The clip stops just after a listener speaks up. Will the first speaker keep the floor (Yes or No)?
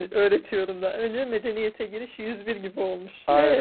No